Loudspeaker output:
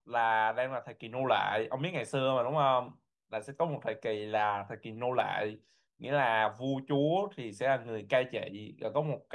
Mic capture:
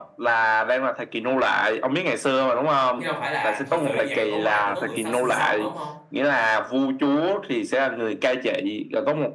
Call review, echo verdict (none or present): present